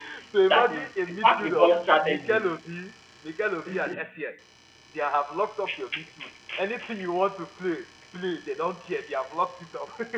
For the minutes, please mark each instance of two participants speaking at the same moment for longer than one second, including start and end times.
0.5-2.6

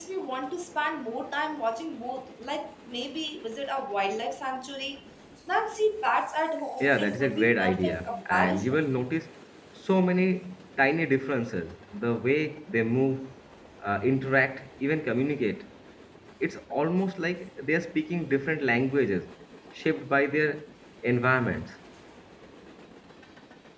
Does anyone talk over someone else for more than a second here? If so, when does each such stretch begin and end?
6.8-8.8

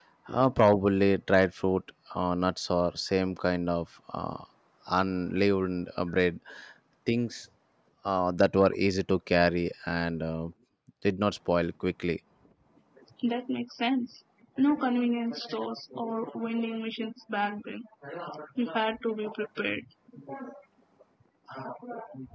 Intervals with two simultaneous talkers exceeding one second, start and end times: none

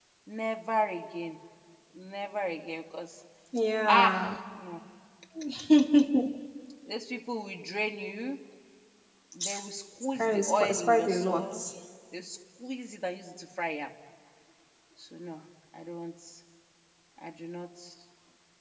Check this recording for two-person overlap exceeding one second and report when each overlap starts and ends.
10.2-11.5

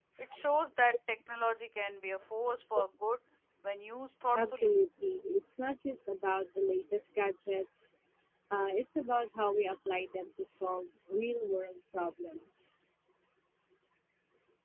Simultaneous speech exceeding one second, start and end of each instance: none

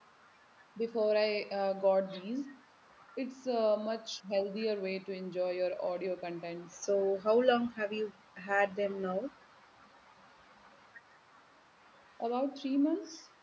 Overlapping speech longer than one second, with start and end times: none

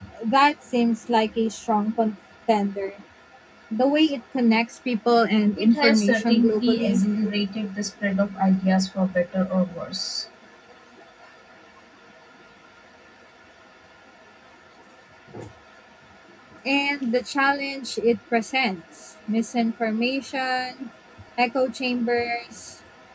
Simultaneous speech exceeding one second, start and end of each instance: 5.6-7.0

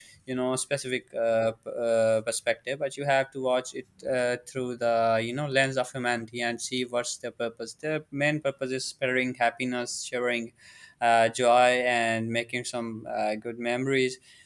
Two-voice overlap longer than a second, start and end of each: none

